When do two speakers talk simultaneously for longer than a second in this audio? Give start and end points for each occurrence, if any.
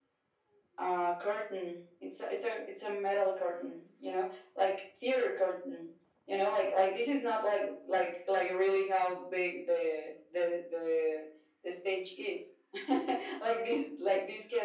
none

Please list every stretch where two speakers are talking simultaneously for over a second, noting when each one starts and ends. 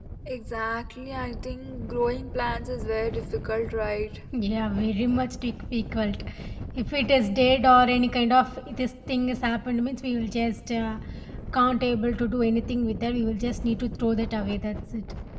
none

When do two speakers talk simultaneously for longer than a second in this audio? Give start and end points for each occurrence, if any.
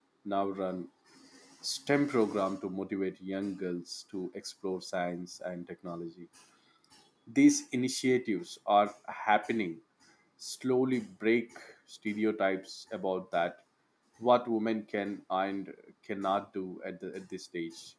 none

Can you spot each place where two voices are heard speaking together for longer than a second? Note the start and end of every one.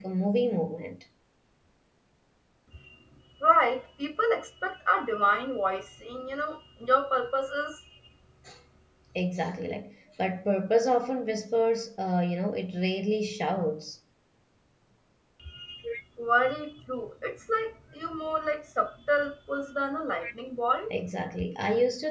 none

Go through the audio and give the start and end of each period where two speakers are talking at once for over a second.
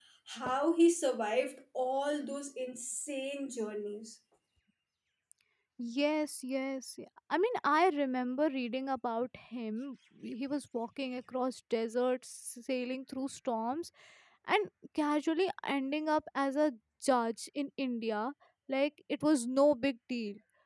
none

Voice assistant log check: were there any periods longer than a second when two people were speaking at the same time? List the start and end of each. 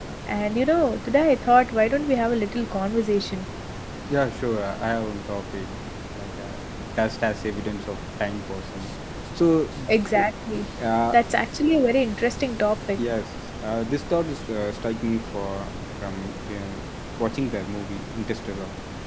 none

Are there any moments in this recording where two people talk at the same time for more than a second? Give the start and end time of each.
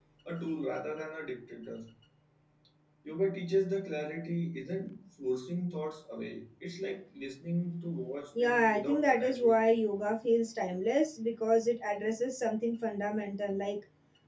8.4-9.6

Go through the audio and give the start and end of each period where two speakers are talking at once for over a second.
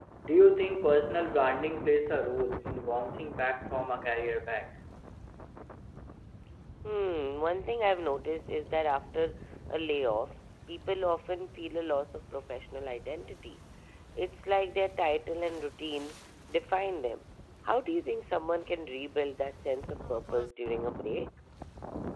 none

